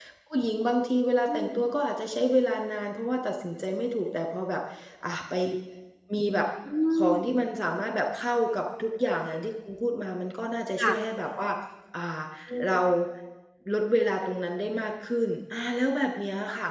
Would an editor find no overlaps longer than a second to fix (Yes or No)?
Yes